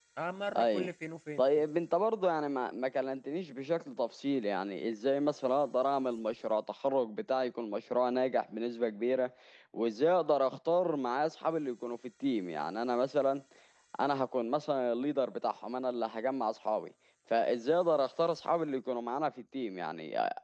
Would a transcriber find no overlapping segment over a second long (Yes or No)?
Yes